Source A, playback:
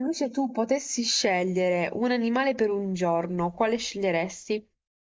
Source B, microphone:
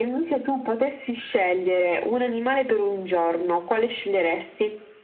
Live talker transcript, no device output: none

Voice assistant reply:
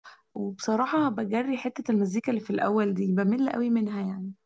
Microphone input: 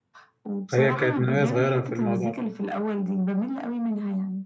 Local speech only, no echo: فهي كانت من وهي صغيرة في الموضوع ده.

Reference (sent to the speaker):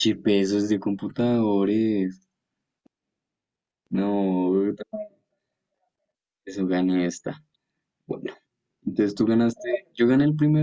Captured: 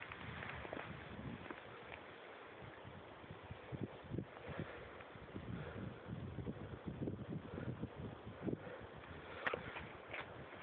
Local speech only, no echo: none

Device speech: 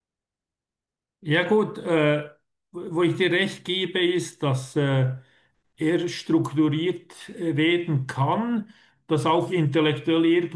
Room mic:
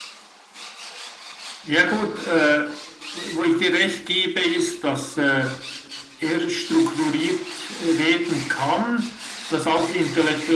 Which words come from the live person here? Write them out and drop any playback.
none

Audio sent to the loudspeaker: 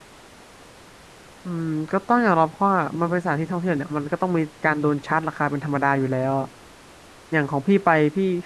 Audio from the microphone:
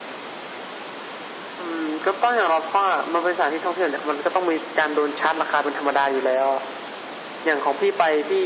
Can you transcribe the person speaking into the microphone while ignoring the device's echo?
none

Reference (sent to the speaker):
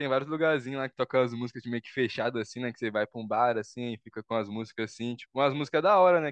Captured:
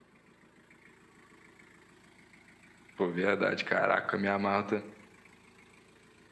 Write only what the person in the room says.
Pô, verdade, caraca, eu me amarro

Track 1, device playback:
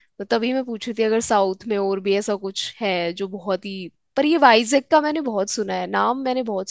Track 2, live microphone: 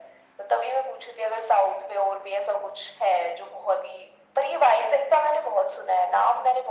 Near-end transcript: none

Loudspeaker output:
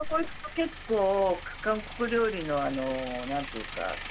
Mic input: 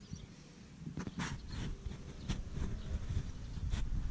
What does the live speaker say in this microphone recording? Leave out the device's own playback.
none

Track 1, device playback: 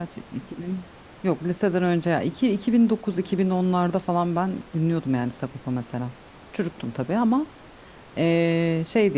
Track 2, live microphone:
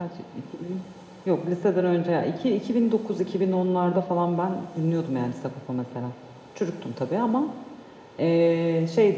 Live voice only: none

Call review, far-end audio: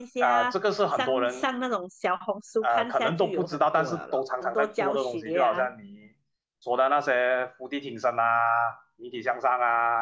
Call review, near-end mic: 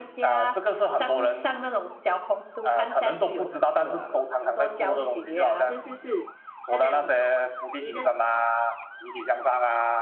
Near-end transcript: 是是是，他讲你的

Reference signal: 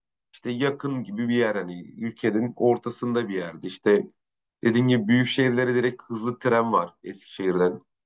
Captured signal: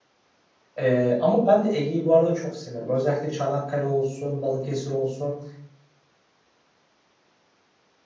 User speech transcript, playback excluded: E, ama ben de Ege'yi bu arada çok severim. Özellikle Çanakkale olsun, Balıkesir olsun.

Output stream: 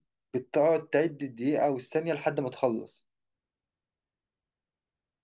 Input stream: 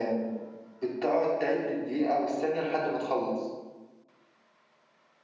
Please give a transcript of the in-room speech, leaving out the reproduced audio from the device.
none

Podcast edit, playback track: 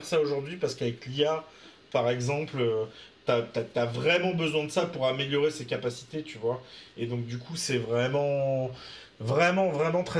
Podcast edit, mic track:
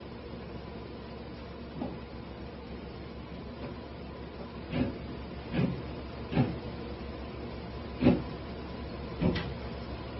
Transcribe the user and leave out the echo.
none

